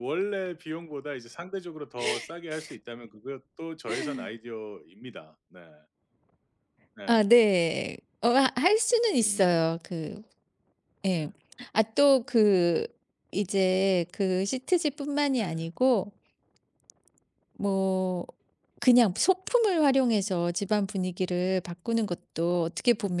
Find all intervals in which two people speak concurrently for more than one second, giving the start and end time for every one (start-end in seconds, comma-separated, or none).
none